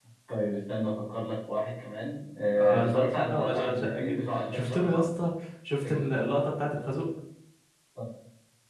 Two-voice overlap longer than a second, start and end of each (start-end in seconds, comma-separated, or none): 2.6-5.0